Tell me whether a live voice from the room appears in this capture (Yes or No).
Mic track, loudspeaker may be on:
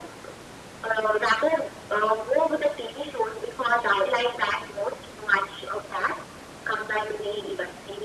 No